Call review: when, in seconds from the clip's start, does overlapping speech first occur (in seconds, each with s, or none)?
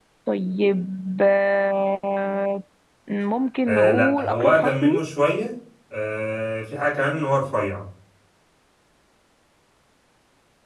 3.7 s